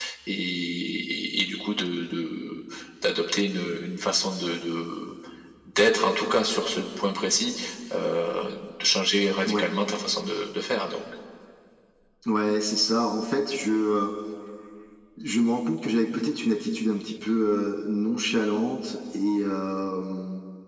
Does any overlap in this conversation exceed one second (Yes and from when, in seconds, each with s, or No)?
No